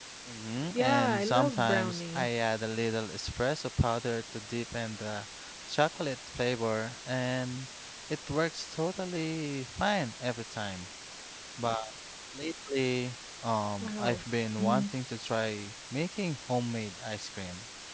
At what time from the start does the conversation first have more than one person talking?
1 s

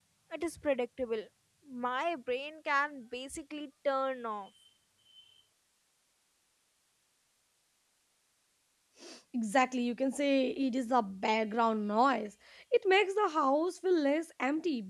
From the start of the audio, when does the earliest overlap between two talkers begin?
none

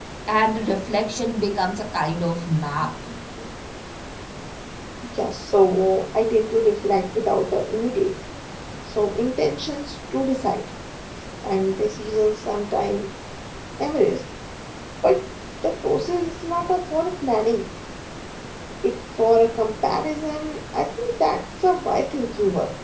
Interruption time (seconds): none

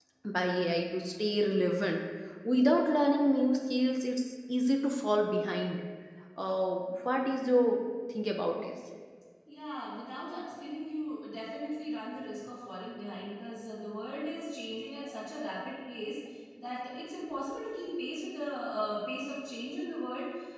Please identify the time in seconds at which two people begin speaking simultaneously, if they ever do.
none

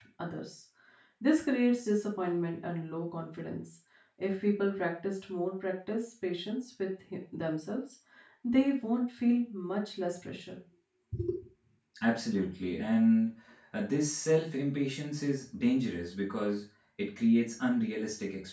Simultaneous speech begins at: none

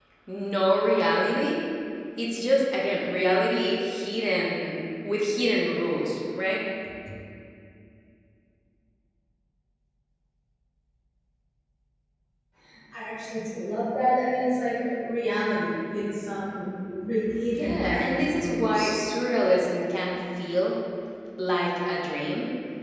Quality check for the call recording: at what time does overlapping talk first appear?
18 s

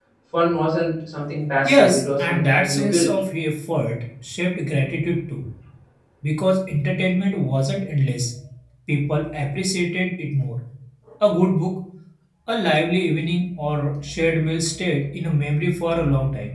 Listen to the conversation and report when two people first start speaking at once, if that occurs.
2 s

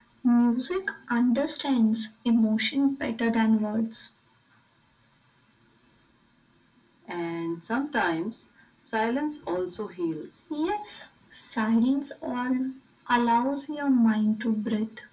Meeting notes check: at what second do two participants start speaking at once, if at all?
none

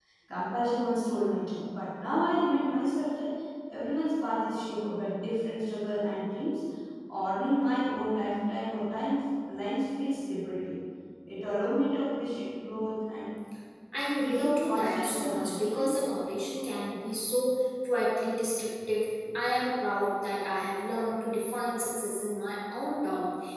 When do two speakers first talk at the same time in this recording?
14 s

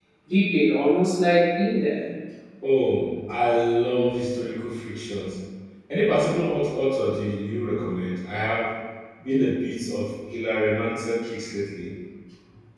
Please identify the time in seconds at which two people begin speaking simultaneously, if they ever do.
none

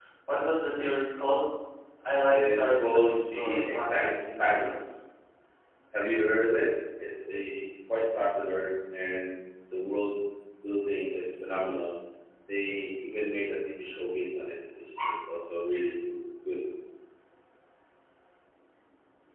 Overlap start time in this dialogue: 2 s

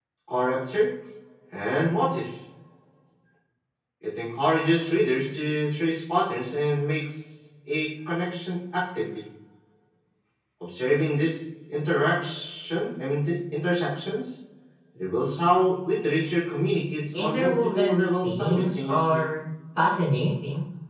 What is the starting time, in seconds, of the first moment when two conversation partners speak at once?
17 s

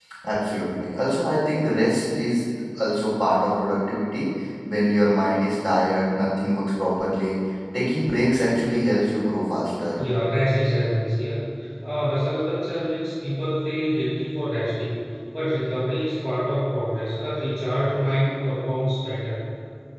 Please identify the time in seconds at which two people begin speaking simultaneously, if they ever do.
none

